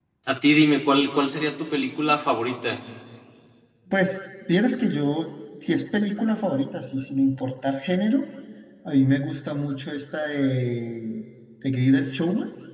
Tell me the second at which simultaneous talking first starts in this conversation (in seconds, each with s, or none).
none